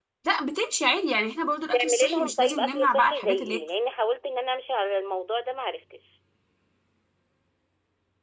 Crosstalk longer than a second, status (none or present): present